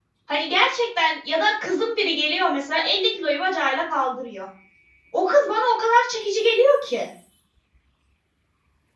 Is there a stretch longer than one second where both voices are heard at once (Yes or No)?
No